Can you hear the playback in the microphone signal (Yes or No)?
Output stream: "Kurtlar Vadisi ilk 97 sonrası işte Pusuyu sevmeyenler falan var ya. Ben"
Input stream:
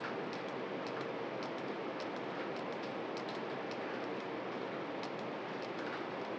No